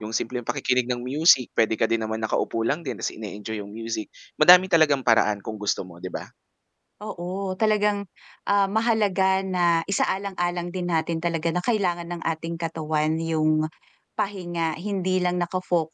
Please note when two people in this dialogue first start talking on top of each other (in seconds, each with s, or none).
none